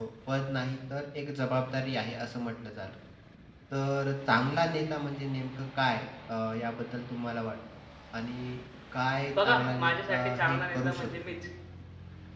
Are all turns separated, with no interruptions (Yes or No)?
No